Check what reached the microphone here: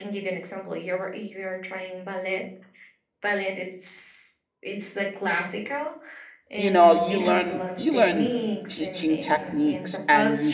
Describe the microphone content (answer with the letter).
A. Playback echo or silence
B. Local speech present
B